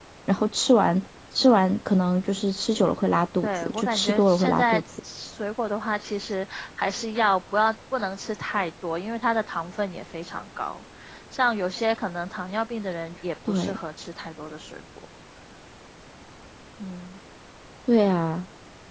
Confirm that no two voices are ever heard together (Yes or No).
No